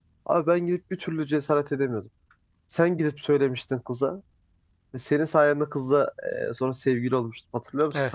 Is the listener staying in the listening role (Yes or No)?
No